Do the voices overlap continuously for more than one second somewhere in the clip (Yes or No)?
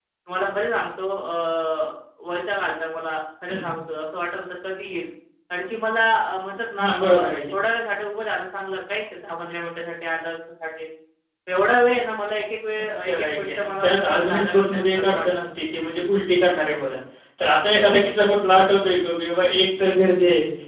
Yes